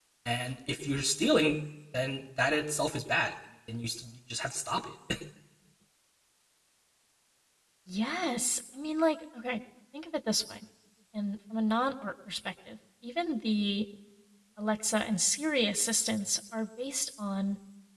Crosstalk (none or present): none